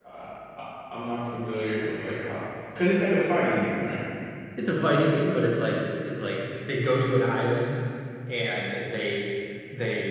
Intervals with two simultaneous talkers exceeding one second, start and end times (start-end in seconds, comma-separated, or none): none